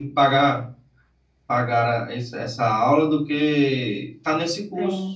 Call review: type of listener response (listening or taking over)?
taking over